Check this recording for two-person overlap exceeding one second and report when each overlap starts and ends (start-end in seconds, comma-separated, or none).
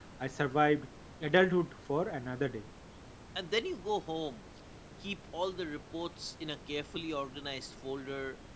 none